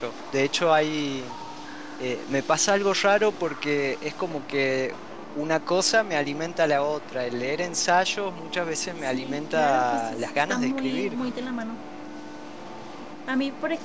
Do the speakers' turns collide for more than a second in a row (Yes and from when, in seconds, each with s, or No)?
Yes, from 9.0 s